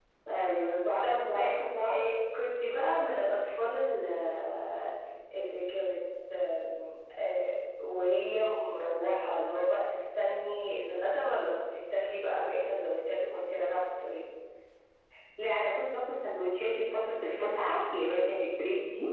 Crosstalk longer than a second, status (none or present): none